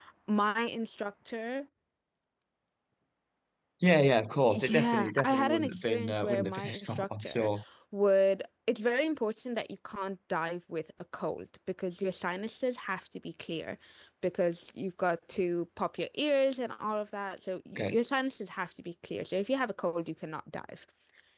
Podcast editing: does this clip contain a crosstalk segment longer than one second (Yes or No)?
Yes